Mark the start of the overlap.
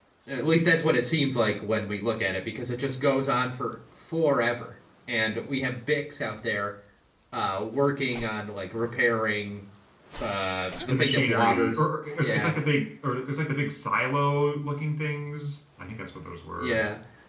10.9 s

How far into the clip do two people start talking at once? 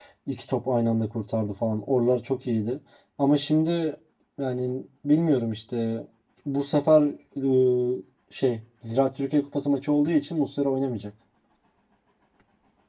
none

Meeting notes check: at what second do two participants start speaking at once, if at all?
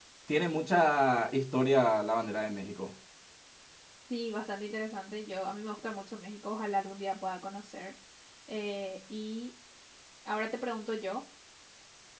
none

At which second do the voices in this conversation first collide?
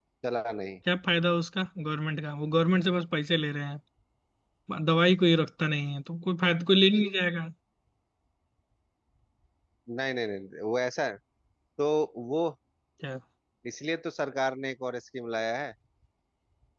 none

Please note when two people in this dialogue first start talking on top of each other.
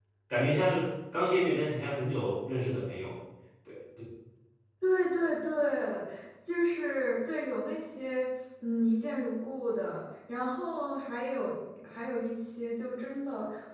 none

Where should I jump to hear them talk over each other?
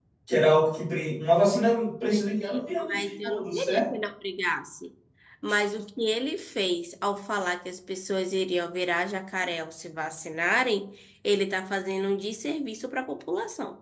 2.0 s

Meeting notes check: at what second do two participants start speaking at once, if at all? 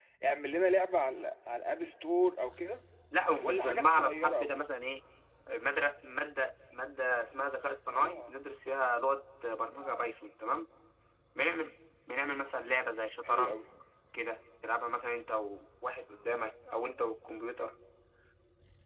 3.4 s

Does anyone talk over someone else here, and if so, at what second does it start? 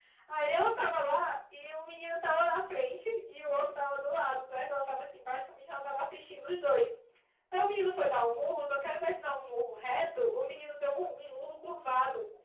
none

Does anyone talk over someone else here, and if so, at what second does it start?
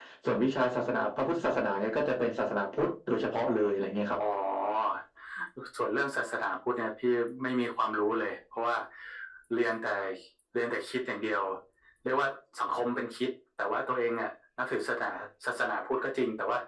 none

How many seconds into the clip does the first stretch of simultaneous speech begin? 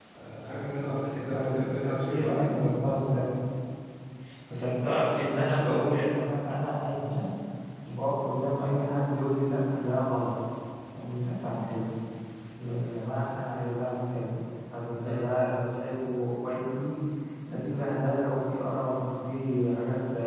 1.3 s

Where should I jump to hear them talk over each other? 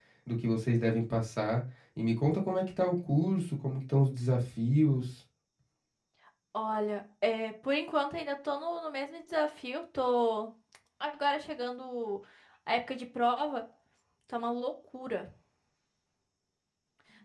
none

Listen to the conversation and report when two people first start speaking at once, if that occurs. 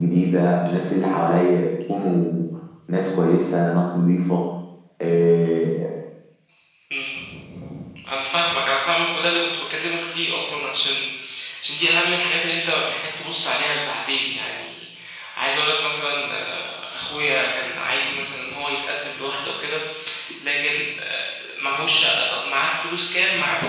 none

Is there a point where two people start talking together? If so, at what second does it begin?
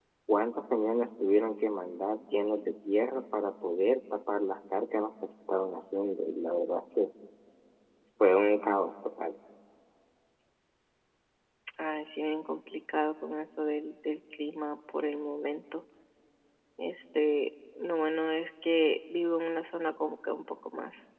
none

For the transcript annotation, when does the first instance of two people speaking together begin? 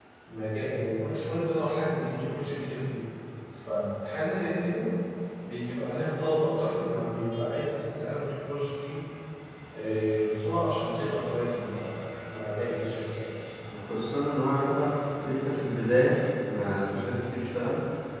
none

